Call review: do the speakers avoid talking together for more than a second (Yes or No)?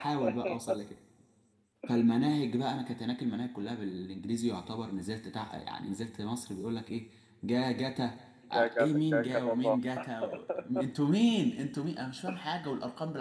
No